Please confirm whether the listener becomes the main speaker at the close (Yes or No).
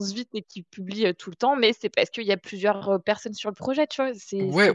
Yes